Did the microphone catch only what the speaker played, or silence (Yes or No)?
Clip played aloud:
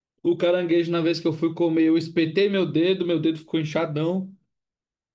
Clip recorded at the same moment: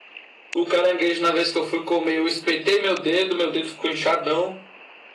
Yes